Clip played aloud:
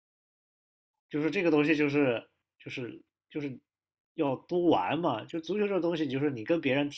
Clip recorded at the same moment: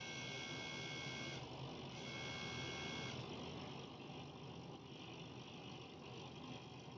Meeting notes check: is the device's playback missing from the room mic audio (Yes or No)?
Yes